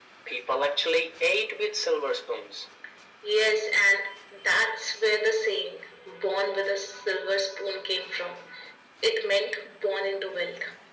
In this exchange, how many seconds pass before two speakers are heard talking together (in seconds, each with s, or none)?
none